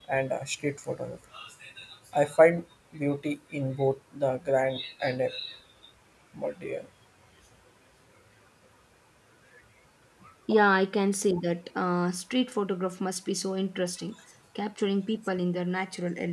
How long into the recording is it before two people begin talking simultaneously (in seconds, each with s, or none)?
none